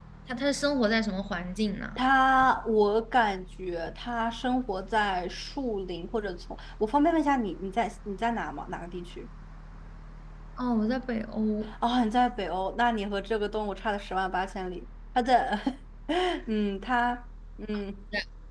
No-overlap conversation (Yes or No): Yes